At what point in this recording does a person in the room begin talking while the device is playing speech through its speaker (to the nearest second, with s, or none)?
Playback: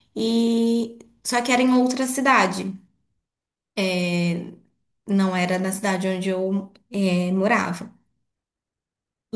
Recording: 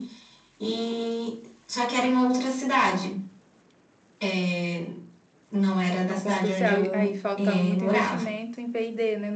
6 s